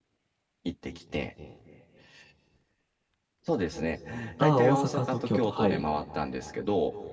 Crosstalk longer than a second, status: present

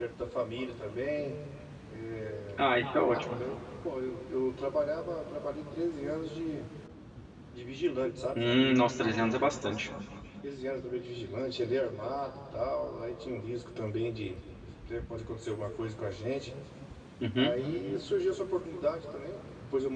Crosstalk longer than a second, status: none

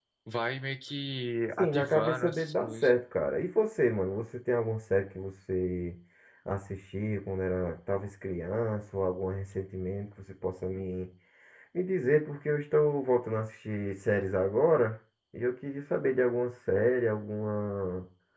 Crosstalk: present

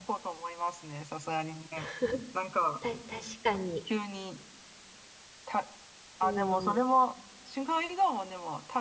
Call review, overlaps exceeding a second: none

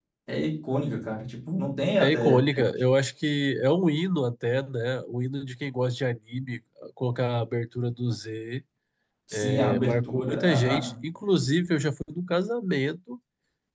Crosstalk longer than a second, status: present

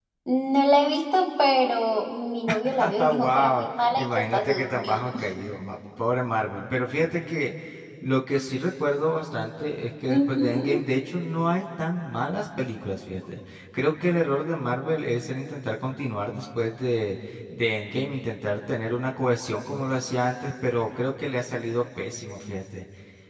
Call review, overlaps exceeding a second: present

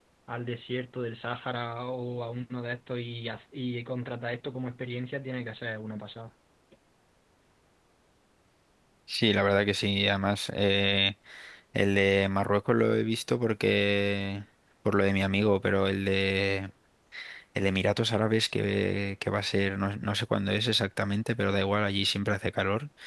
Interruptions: none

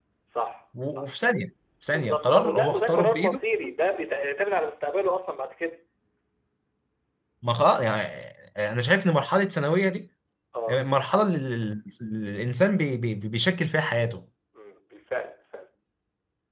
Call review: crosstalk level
present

